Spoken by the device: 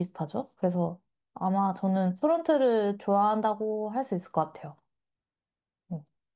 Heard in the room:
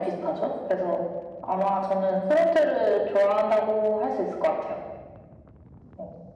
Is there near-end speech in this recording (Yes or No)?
No